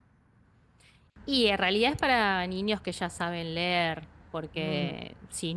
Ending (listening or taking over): listening